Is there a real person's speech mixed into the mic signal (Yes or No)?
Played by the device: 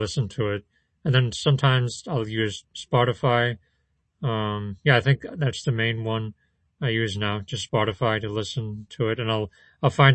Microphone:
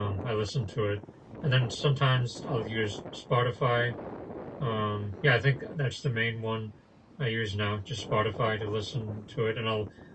No